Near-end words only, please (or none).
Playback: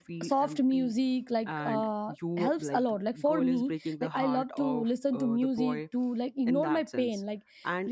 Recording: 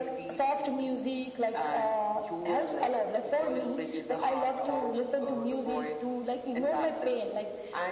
none